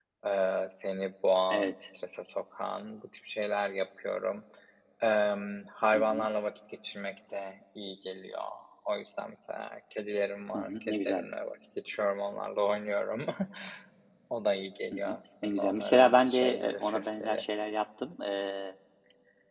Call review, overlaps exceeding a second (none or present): present